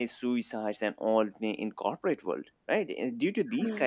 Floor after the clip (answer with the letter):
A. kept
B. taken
A